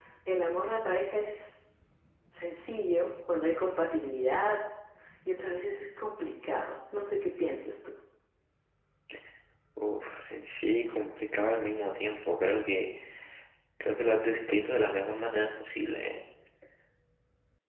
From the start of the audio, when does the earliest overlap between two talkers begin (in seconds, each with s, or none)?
none